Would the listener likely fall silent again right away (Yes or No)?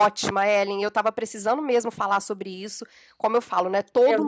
Yes